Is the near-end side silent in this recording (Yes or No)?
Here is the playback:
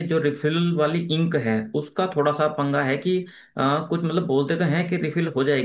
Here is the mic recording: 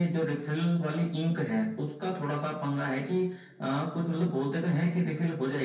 Yes